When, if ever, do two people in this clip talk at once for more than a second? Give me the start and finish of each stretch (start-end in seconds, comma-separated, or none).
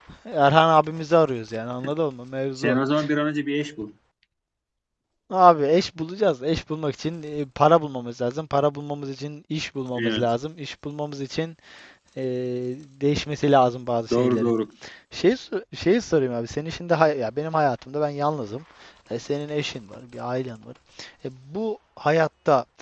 none